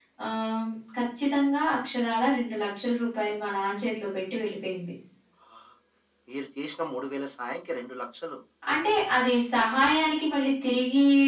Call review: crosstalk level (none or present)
none